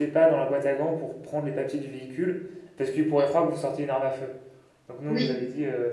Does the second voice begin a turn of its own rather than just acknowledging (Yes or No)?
No